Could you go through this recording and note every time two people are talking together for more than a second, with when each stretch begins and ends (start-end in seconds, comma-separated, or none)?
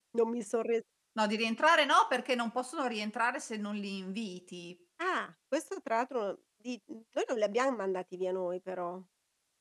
none